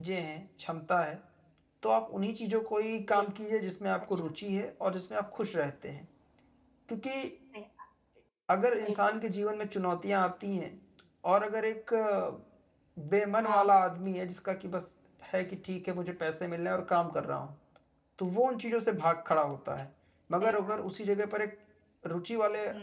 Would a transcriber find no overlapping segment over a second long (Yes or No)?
Yes